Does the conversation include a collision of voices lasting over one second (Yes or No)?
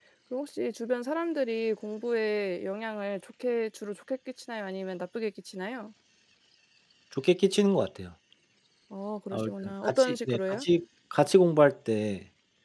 Yes